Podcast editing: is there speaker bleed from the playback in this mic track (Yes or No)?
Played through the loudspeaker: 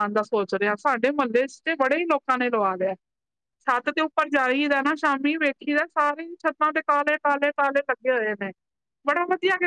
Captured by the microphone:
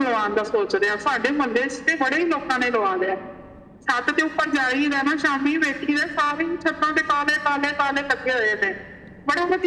Yes